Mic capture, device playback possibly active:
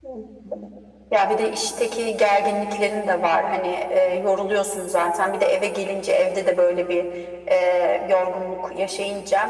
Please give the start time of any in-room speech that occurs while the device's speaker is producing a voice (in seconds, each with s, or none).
none